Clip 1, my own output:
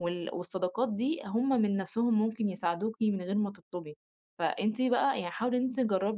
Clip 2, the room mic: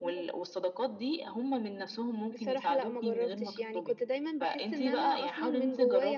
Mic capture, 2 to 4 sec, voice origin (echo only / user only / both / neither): both